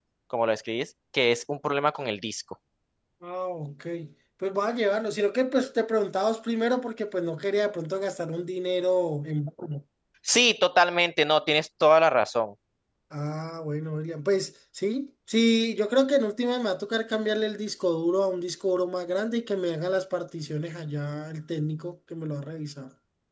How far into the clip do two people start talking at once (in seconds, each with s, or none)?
none